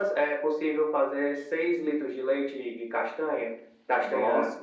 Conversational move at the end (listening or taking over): listening